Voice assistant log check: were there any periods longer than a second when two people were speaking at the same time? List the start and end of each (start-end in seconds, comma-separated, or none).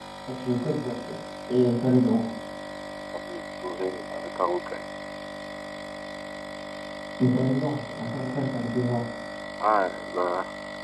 none